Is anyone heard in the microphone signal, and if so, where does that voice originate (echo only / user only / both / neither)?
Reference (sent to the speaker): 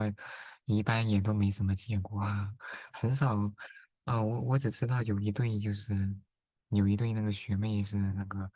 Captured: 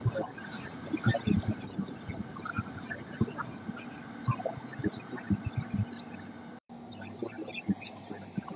echo only